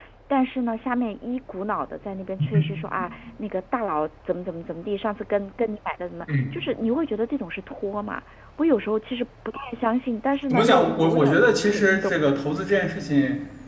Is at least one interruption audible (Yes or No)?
Yes